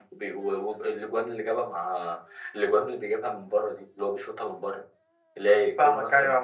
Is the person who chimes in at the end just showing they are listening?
No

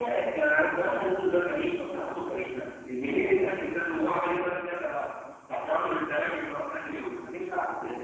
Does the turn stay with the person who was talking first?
No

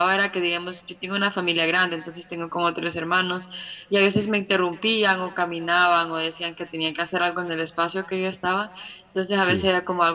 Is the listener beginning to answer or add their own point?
No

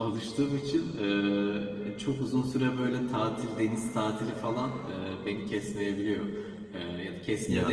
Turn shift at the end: No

